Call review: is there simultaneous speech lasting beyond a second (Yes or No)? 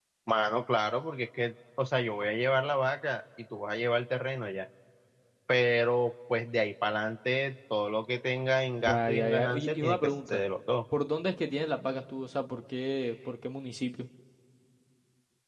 Yes